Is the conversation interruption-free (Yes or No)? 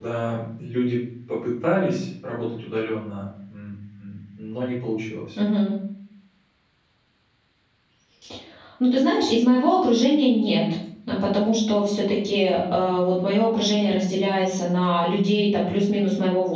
Yes